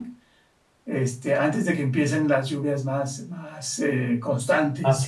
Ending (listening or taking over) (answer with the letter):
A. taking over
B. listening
A